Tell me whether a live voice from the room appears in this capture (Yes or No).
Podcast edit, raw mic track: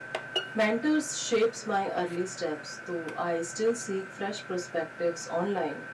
Yes